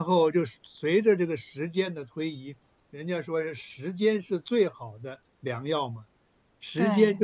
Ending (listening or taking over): listening